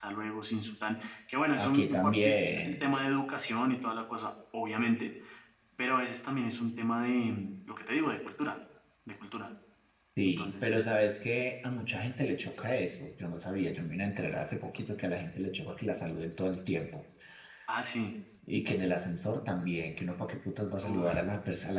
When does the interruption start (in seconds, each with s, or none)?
1.6 s